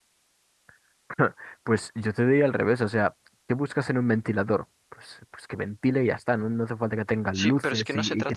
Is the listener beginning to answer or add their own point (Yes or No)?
Yes